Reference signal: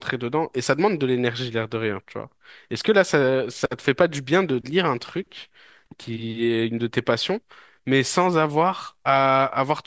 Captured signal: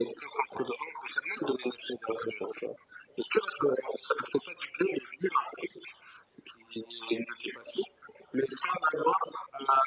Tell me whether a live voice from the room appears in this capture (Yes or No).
No